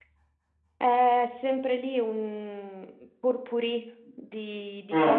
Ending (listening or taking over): listening